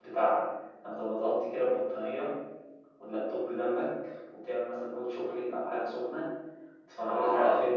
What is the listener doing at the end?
listening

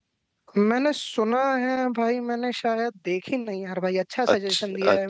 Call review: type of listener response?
taking over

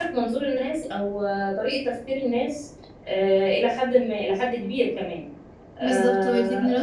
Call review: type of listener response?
taking over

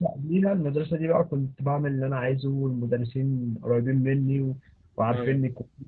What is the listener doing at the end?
listening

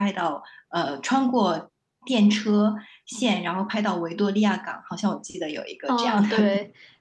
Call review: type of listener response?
taking over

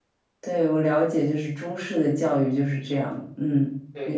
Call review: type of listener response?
taking over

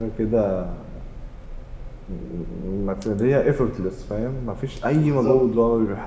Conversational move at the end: listening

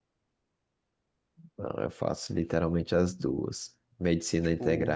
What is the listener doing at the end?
listening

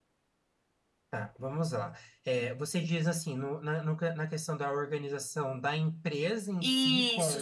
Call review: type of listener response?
taking over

